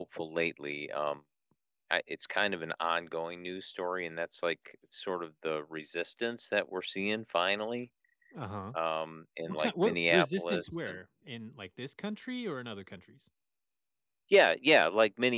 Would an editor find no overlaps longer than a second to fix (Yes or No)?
No